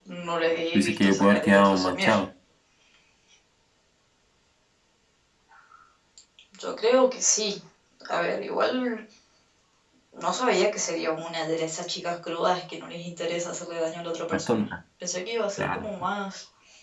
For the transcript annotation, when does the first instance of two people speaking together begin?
1 s

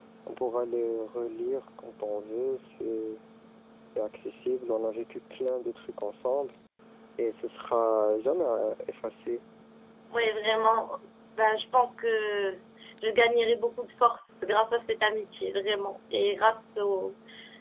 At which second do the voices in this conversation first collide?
none

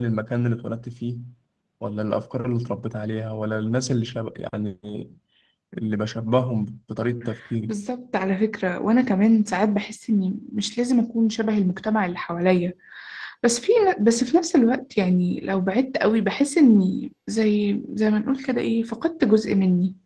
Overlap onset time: none

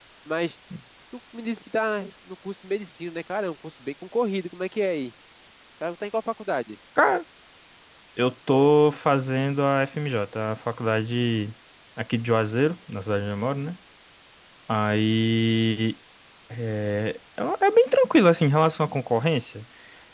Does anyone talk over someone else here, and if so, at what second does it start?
none

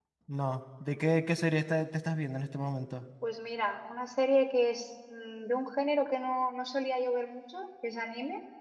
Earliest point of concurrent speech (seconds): none

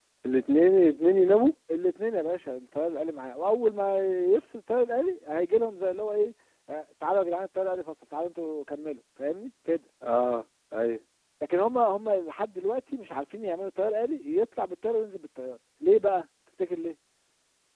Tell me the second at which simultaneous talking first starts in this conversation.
none

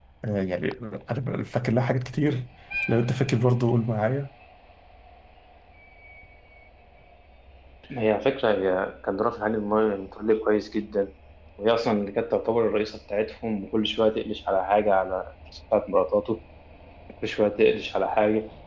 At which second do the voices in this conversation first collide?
none

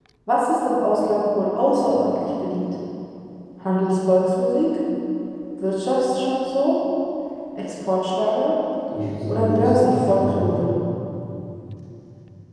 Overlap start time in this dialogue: 9 s

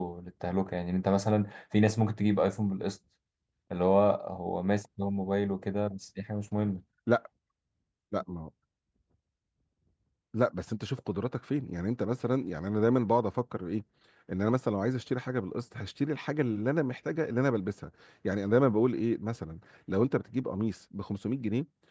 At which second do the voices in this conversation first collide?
none

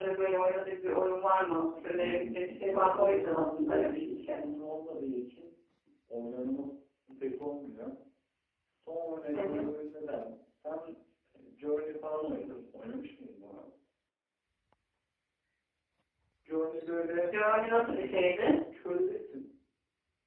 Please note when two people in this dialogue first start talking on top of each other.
2 s

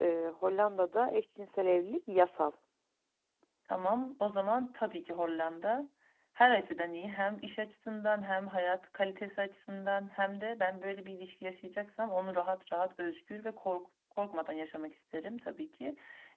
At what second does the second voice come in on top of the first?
none

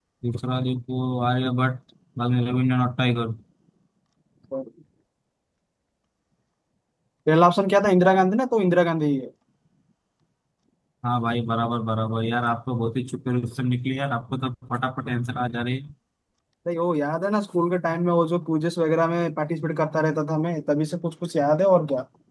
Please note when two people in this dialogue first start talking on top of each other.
none

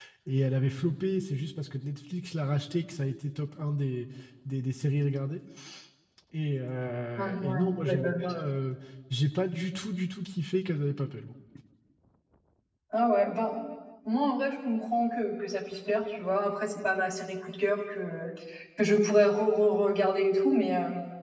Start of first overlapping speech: 7 s

